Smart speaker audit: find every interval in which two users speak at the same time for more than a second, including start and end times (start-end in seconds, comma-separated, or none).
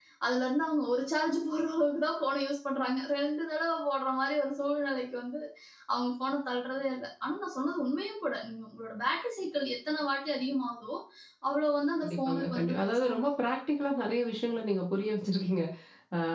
12.0-13.3